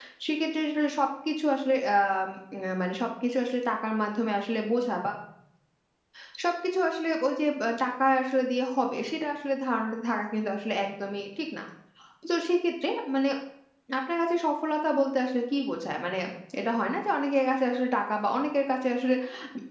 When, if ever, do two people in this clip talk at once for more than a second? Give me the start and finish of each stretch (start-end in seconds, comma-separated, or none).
none